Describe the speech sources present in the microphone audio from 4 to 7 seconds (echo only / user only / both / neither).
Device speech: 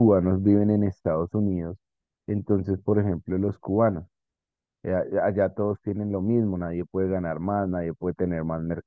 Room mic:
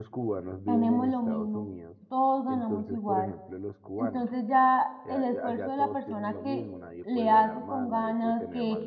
both